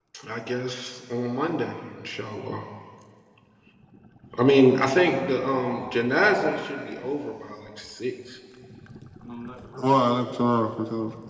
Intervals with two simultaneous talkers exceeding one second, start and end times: none

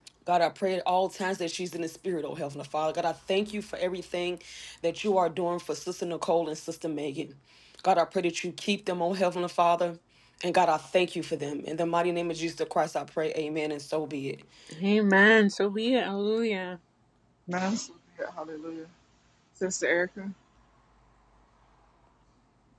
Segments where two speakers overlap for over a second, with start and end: none

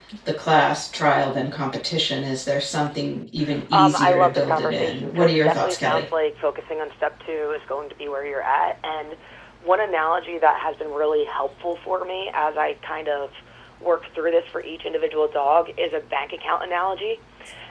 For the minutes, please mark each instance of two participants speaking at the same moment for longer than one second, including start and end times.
3.7-6.0

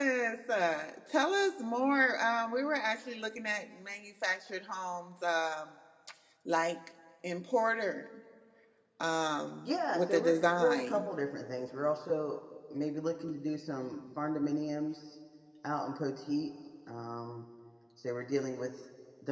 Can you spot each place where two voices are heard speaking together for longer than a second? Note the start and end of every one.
9.7-11.1

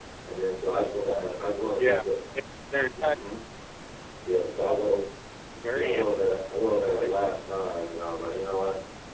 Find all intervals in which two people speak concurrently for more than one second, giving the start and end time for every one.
none

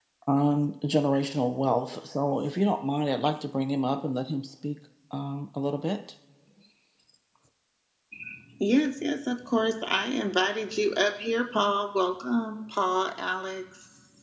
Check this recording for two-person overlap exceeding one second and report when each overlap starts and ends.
none

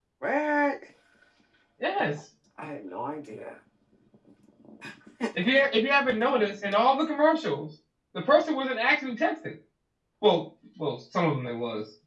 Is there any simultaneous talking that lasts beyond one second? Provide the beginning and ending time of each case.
none

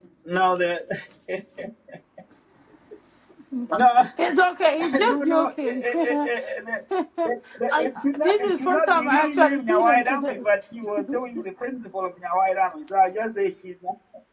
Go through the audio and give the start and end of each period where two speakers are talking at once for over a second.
5.0-6.3, 8.2-10.4

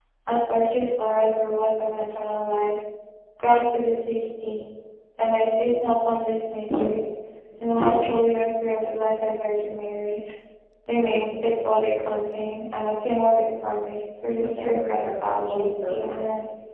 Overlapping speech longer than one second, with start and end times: 14.4-16.2

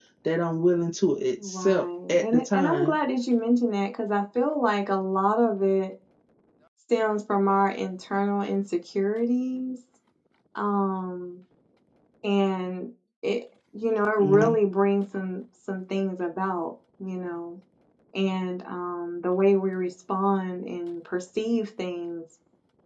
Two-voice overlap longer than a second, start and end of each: 1.4-3.0

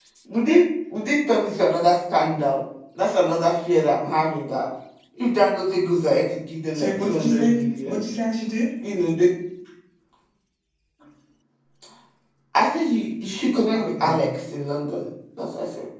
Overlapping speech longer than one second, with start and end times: 6.7-8.0

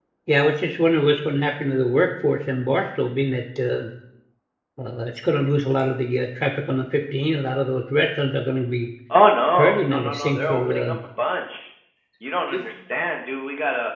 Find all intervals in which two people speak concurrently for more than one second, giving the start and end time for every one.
9.6-10.9

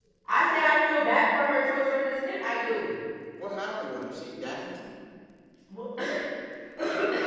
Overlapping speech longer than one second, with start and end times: none

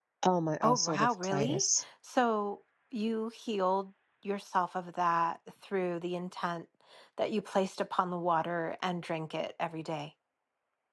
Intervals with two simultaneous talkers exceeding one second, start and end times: 0.6-1.8

